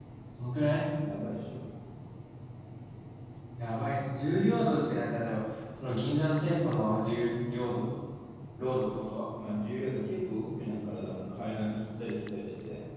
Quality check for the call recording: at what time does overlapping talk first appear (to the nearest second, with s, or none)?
none